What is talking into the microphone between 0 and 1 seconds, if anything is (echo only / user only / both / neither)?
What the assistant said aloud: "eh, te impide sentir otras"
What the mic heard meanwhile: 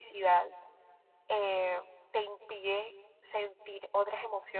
echo only